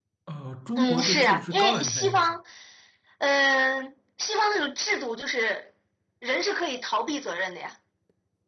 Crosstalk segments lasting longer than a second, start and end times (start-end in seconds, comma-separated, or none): 0.8-2.4